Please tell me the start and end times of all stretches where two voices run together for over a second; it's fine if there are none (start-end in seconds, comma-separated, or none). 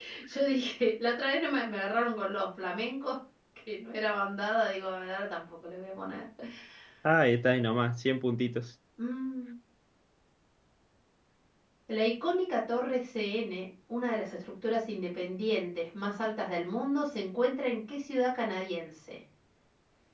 none